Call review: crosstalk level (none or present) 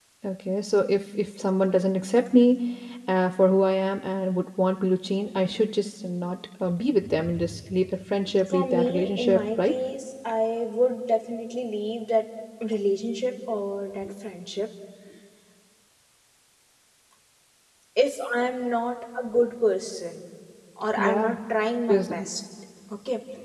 present